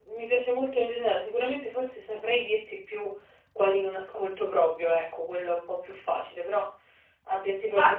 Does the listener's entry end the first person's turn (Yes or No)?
Yes